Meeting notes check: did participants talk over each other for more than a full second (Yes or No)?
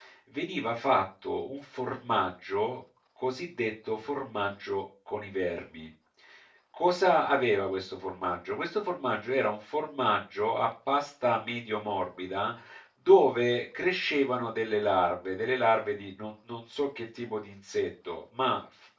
No